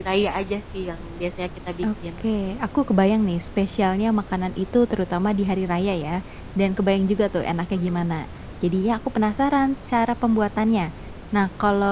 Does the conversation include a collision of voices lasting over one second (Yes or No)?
No